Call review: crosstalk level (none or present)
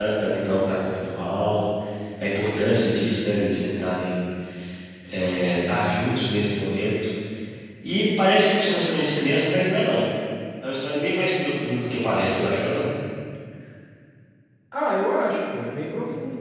none